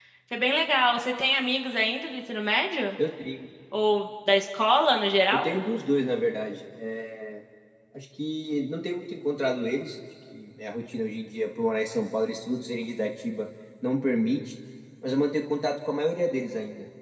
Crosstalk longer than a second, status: none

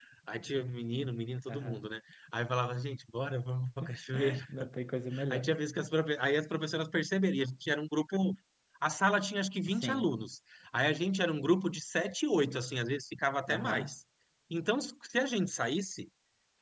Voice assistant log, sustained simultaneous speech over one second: none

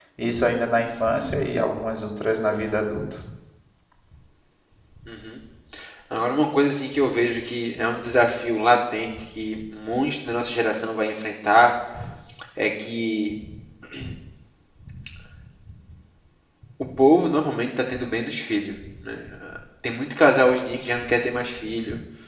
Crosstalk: none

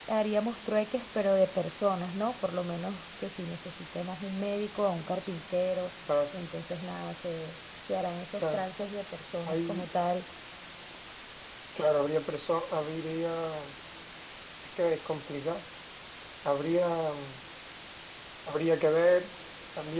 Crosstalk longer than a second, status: none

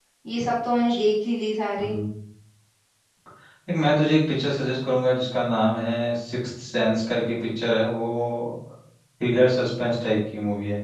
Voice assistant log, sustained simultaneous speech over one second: none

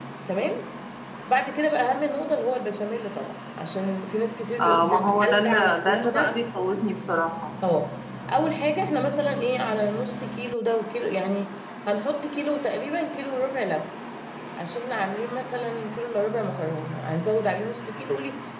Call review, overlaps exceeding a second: present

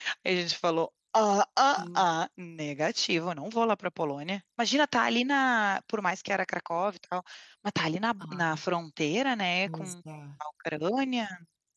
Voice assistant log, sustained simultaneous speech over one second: none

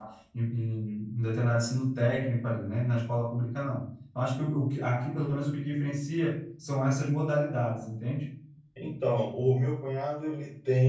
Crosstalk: none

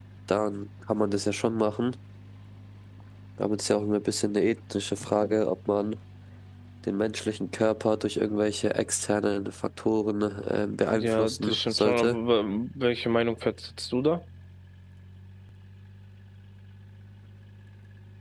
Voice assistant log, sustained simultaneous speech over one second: present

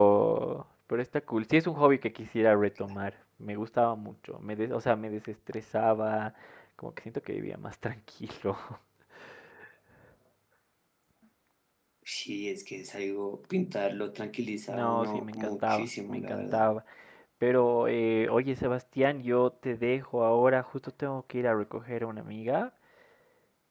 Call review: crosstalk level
present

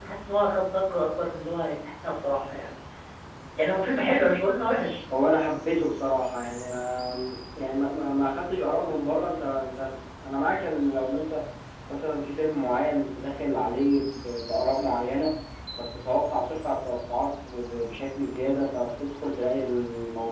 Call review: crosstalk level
none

